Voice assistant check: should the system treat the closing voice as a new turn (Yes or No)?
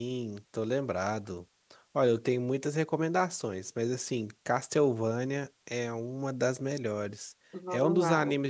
No